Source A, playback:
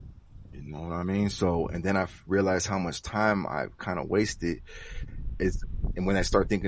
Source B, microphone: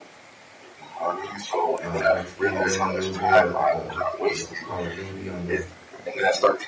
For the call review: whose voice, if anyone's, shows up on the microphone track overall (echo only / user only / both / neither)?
both